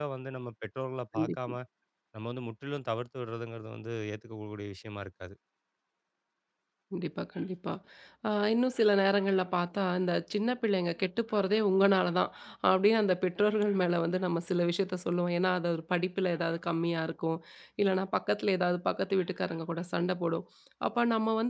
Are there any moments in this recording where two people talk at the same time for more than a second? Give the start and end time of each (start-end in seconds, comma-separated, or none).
none